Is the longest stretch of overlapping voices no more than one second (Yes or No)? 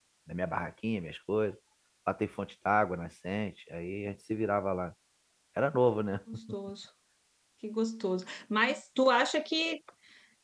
Yes